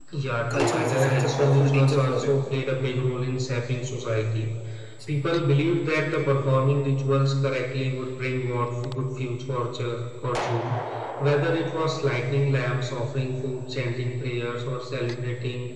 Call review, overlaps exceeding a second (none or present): present